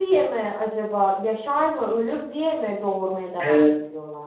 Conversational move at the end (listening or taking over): taking over